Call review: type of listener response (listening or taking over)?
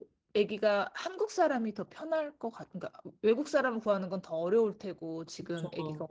listening